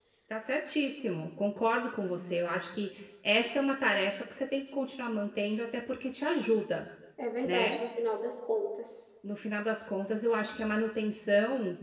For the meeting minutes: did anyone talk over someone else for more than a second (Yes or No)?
No